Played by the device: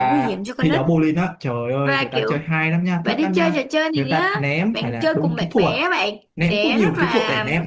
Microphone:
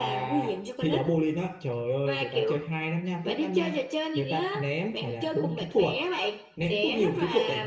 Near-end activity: none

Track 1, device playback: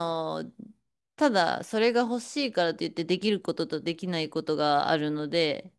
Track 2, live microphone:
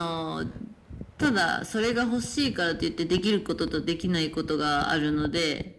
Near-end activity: none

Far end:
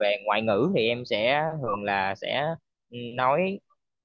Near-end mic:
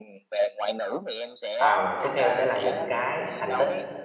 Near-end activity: present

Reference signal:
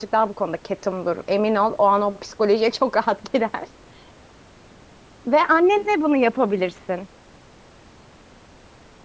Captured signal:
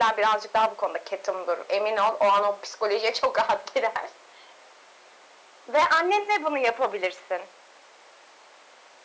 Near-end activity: none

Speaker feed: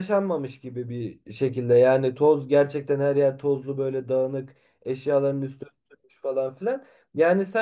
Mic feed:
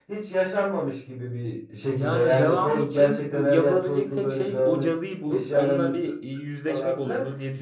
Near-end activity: present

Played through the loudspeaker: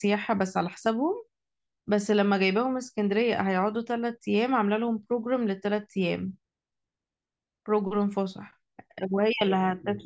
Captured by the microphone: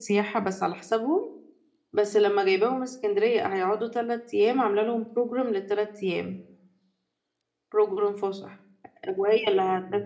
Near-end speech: none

